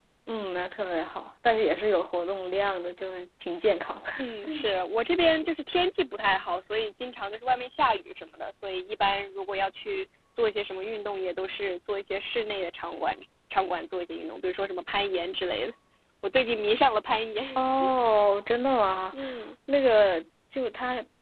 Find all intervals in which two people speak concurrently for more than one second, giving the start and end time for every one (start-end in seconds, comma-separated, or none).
none